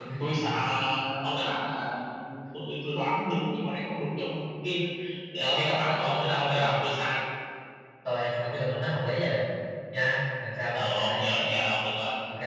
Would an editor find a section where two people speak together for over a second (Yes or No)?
Yes